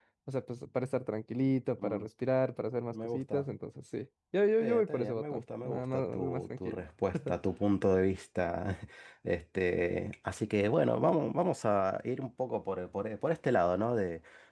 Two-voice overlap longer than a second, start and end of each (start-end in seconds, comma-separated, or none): 4.6-6.8